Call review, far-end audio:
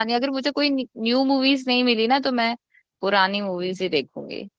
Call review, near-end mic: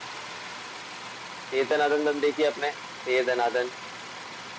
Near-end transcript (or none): दे दनादन दन देखी आपने दे दनादन